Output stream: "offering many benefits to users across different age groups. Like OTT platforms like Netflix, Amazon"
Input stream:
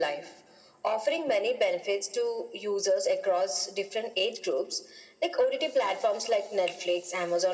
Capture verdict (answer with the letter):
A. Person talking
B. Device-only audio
B